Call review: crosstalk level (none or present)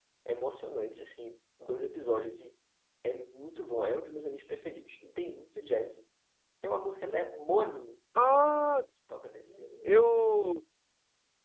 none